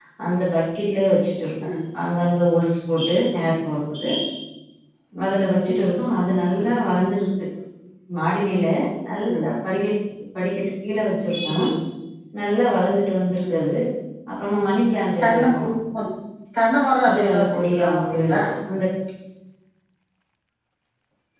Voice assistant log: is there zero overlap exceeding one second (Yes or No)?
No